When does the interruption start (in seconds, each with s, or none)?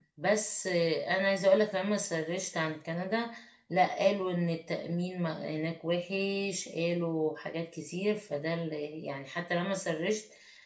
none